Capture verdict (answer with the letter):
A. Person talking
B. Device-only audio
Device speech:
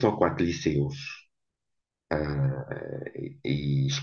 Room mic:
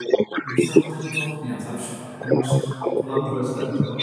A